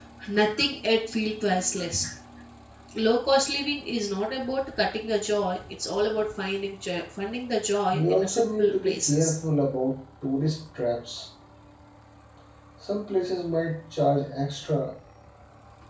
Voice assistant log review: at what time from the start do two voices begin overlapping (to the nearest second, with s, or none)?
8 s